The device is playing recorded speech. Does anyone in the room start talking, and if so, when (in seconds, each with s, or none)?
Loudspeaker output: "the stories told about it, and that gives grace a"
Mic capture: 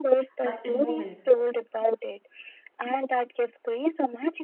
0.4 s